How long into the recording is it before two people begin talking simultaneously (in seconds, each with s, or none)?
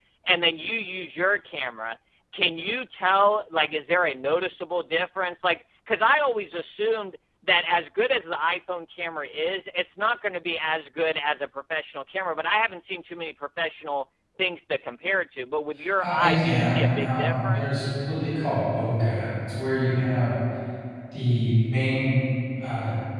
16.0 s